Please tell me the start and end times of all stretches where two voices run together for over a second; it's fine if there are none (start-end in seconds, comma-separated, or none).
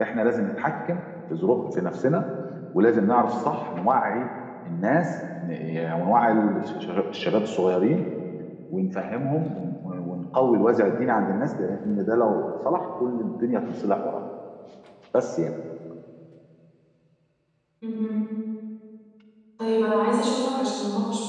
none